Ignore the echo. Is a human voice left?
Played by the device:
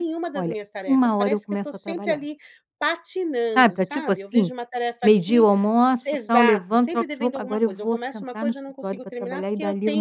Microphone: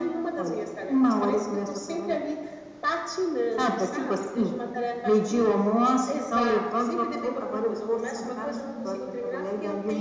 No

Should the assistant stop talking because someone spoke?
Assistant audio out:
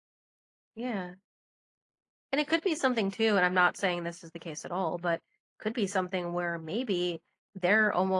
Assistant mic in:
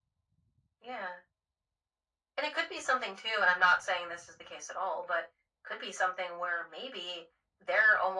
No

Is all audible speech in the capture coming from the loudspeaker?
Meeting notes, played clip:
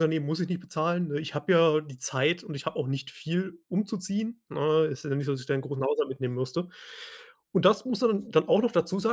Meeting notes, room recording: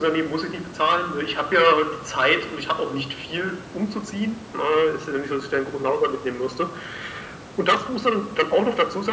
Yes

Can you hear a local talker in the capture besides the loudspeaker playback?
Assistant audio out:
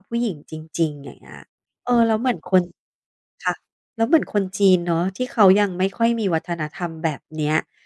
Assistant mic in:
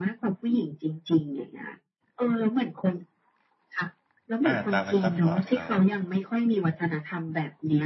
Yes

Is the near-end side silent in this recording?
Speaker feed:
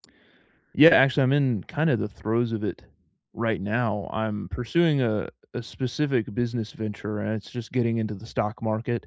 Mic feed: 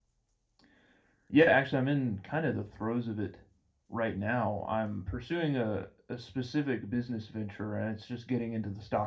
Yes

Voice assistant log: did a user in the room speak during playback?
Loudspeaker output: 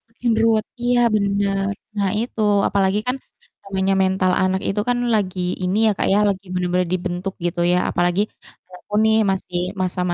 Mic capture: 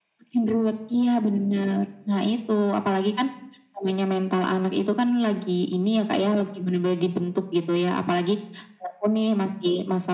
No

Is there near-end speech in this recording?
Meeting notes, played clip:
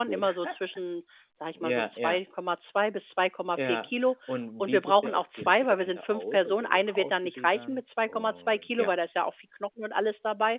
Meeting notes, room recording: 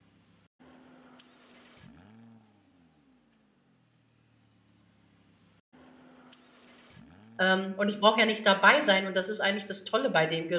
Yes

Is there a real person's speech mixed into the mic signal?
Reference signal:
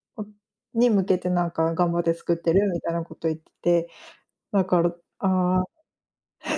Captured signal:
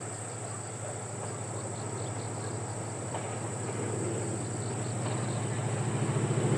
No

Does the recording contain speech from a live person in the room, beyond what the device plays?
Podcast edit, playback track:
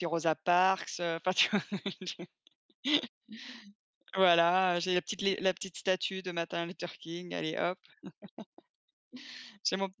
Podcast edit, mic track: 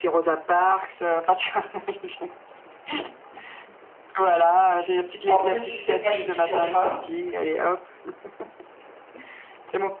Yes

